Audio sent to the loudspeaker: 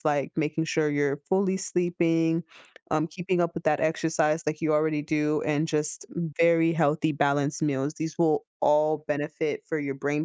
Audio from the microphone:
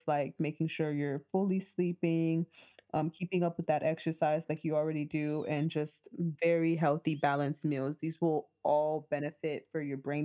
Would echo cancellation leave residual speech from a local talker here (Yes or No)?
No